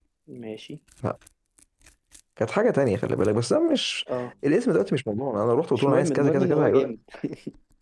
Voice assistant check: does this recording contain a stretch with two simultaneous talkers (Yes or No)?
Yes